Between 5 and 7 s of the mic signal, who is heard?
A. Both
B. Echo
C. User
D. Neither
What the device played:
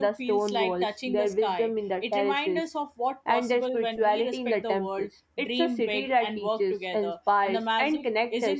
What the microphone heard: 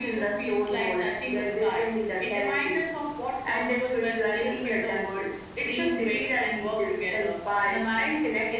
B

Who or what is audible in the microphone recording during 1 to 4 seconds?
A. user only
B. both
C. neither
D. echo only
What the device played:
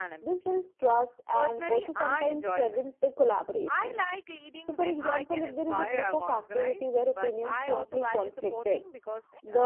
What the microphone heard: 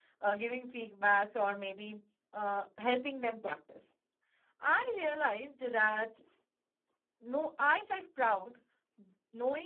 A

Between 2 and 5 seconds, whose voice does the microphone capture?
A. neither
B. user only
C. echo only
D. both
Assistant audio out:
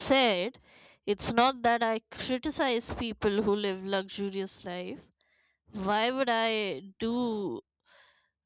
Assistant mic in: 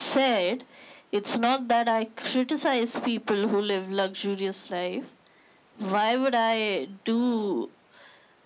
C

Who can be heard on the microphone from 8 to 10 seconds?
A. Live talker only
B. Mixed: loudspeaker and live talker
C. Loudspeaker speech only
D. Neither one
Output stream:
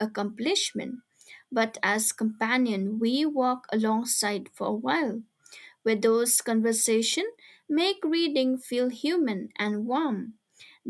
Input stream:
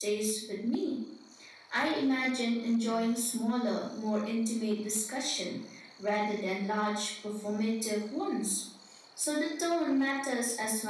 A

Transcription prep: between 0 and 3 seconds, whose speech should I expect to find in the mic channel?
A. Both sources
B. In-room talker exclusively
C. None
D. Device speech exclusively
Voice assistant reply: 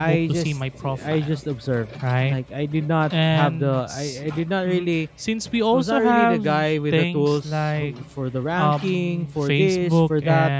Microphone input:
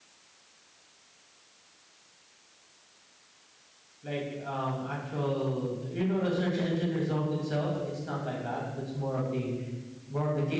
C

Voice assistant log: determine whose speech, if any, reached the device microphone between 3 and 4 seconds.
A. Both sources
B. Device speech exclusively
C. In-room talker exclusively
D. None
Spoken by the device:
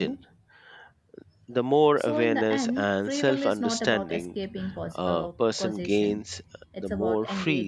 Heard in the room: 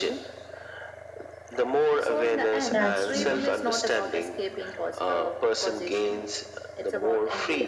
A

